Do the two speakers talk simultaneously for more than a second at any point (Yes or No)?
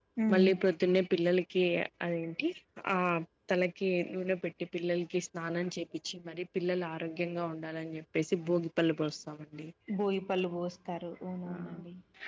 No